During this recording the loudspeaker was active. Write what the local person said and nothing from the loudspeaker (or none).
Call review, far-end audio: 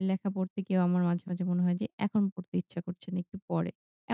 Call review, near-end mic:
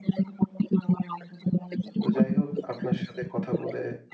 তো যাই হোক, আপনার সাথে কথা বলে